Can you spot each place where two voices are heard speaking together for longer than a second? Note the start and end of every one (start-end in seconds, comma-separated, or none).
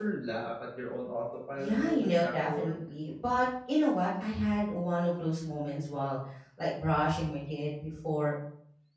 1.6-2.8